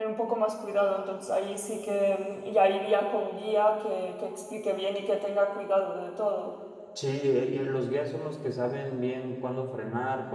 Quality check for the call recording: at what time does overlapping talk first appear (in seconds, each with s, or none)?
none